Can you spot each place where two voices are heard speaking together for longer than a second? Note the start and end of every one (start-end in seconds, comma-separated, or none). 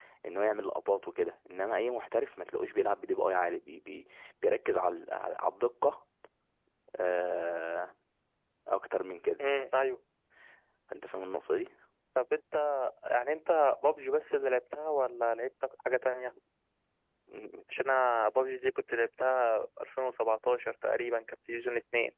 none